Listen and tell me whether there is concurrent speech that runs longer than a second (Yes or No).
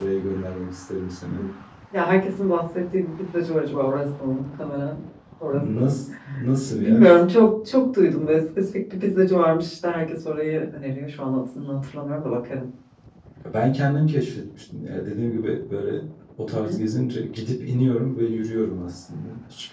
No